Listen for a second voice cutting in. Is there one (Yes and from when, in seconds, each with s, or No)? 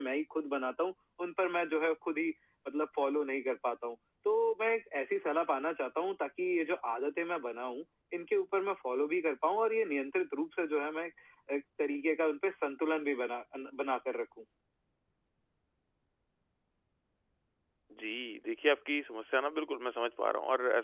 No